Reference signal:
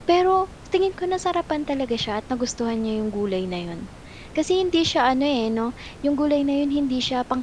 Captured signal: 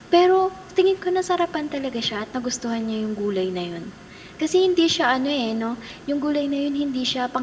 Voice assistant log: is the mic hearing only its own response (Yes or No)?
Yes